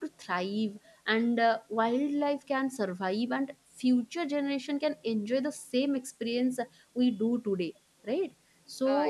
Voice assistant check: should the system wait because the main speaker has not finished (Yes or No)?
Yes